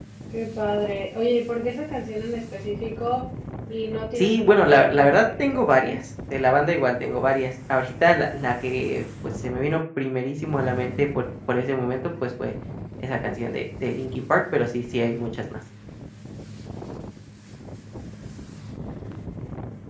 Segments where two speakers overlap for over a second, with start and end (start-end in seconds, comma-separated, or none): 4.2-6.0